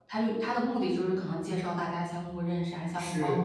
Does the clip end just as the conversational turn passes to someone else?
Yes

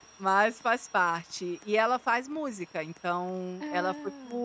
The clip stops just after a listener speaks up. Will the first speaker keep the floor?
Yes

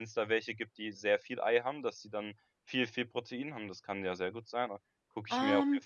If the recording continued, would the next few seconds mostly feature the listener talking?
Yes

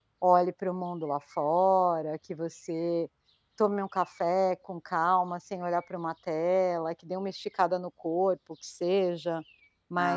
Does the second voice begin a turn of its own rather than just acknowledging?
No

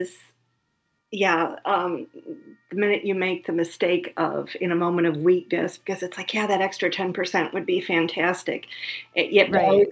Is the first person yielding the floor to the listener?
No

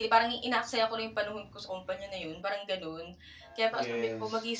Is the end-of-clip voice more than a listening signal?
No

